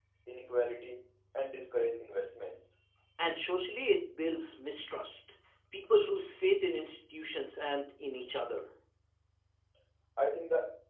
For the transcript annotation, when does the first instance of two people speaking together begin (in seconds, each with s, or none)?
none